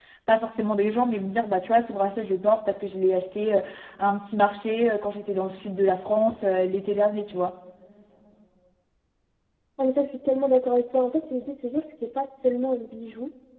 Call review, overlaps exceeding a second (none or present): none